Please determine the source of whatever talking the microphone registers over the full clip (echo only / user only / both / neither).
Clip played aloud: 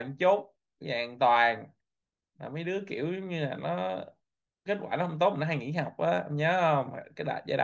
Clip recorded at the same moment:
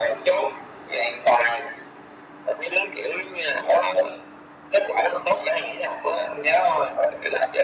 echo only